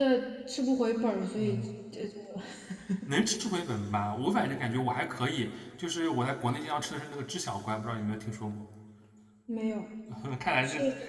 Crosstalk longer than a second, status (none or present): none